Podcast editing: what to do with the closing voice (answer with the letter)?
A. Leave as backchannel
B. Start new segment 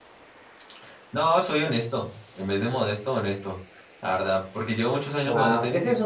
B